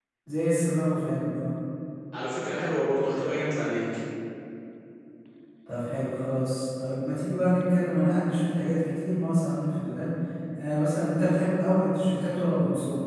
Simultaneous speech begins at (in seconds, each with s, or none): none